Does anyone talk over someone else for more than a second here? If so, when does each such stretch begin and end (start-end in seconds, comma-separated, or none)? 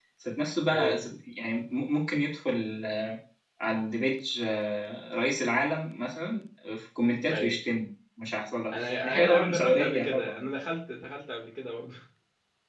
8.7-10.5